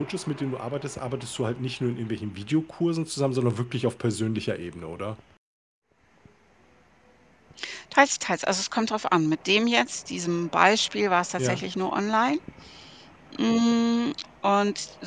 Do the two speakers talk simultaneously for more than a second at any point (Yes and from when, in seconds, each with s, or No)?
No